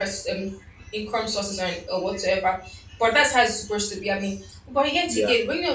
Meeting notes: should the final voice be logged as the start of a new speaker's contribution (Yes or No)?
No